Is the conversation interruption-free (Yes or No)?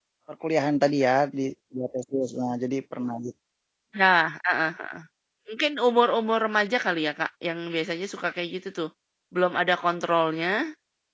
Yes